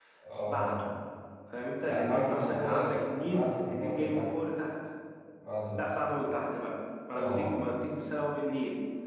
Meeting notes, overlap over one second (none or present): present